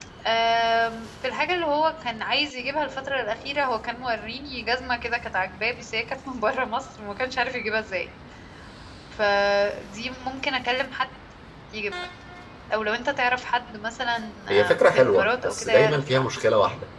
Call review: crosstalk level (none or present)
present